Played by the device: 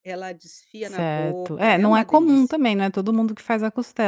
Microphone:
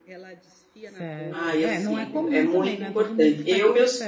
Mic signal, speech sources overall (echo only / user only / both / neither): both